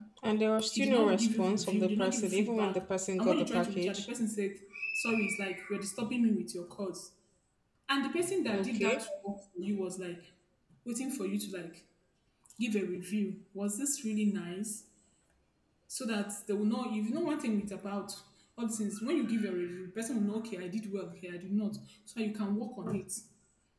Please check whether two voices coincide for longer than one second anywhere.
Yes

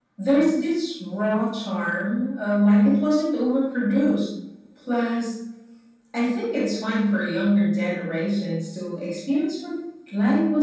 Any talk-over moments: No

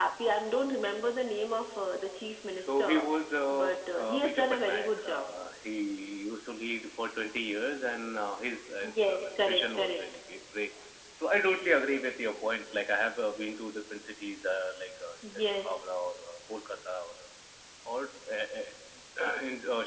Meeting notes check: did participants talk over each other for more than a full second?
Yes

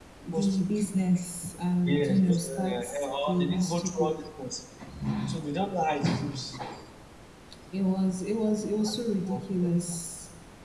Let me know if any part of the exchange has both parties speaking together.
Yes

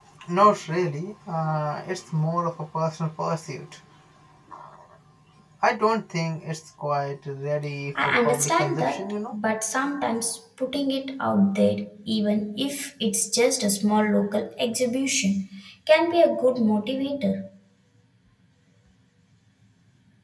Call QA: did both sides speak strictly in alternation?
No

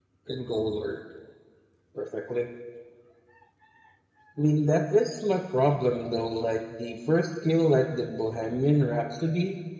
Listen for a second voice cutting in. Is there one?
No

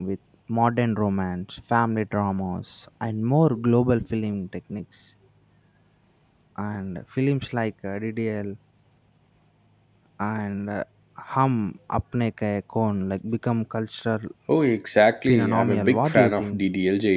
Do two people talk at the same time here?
Yes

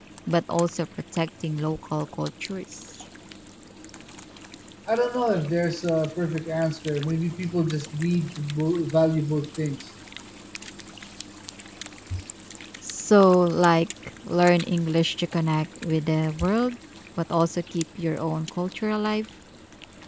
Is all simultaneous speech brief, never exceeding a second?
Yes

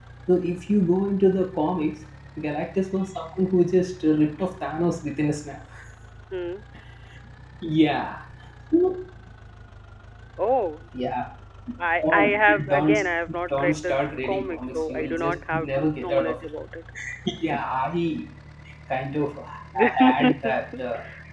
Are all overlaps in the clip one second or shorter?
No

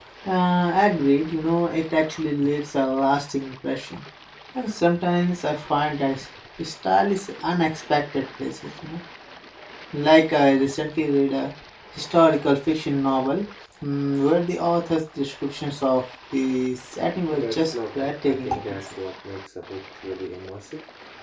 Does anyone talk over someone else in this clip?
Yes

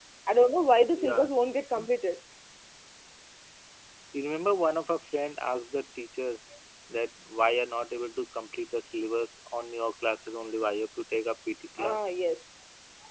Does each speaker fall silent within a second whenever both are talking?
Yes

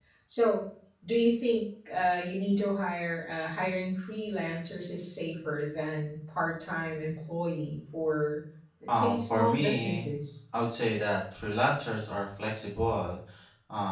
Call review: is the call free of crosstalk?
No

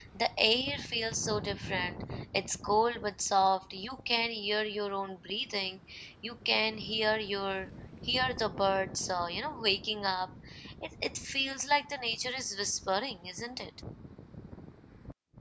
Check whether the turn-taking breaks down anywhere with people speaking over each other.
No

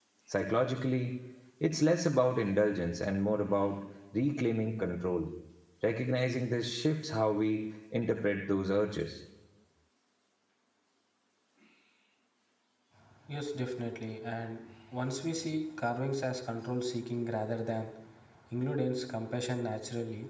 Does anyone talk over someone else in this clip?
No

